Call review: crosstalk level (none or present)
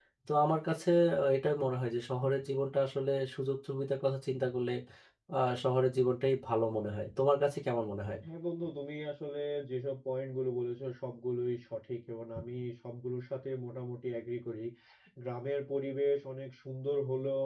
none